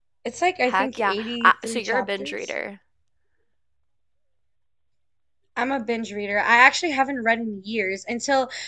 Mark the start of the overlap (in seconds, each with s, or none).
0.7 s